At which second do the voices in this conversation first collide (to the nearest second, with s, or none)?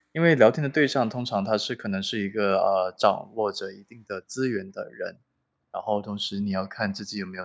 none